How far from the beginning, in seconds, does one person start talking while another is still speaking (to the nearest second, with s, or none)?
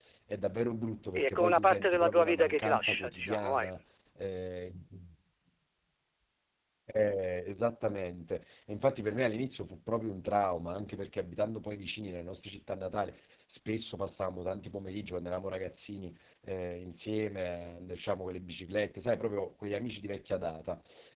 1 s